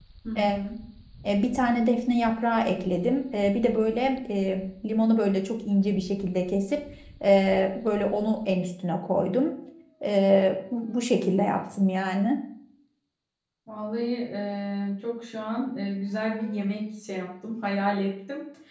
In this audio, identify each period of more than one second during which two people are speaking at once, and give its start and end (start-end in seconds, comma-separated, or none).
none